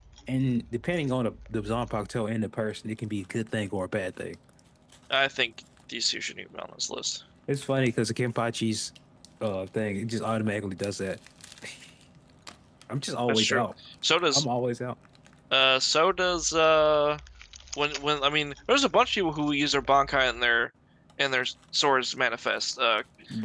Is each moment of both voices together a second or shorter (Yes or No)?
Yes